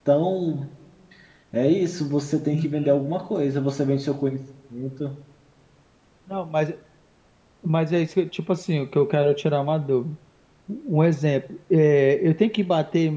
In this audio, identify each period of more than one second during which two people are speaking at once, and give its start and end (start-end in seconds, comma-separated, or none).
none